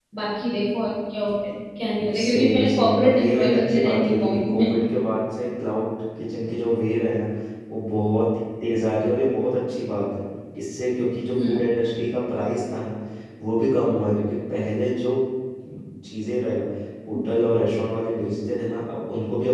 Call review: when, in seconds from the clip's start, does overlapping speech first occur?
2.0 s

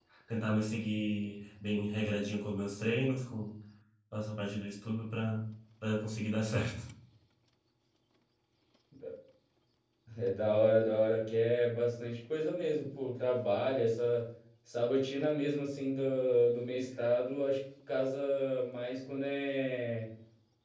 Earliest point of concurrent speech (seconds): none

